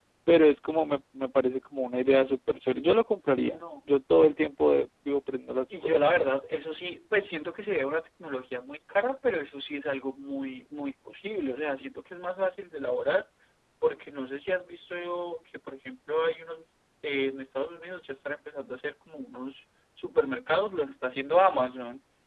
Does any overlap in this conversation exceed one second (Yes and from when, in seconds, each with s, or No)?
No